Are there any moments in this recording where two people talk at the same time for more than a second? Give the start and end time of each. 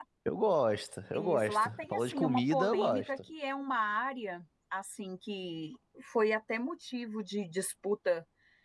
1.1-3.1

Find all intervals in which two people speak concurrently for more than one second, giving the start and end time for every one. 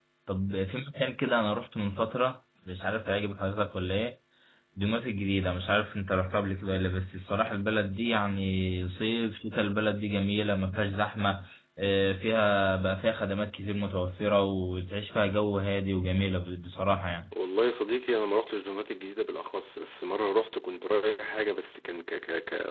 none

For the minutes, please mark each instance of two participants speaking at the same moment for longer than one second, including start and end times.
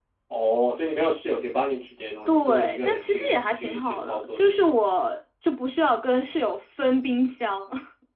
2.3-4.6

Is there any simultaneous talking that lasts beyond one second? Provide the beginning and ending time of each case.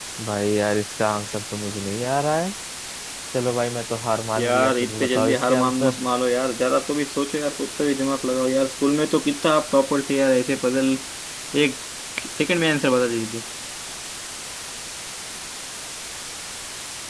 4.4-6.0

